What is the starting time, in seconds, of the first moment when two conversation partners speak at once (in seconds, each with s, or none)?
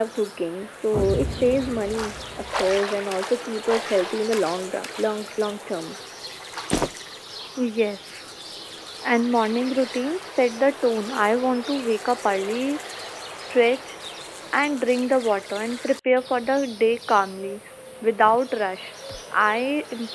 none